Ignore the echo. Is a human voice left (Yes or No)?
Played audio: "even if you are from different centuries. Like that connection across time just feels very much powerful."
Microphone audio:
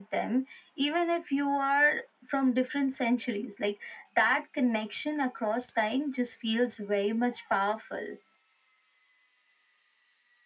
No